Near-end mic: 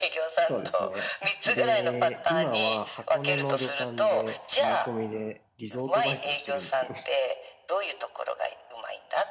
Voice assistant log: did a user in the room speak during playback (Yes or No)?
Yes